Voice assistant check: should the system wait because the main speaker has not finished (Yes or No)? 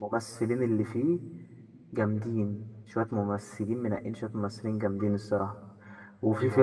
Yes